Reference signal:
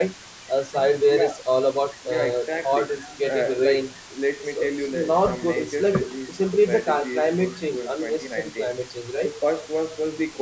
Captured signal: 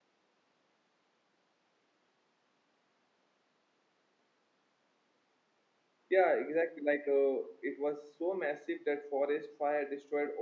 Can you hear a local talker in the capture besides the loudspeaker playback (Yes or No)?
Yes